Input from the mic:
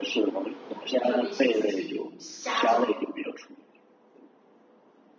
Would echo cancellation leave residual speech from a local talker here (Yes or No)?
Yes